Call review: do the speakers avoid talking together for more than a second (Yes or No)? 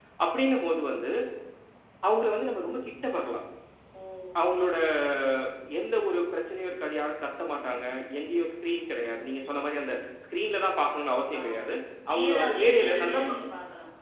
No